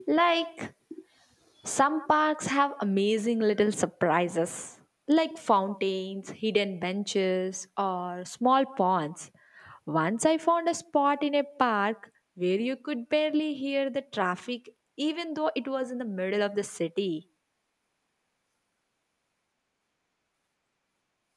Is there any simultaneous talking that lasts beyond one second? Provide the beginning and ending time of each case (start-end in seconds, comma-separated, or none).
none